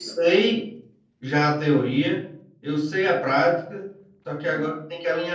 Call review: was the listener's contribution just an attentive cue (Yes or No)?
Yes